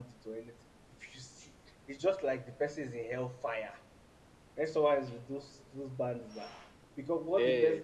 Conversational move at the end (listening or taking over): listening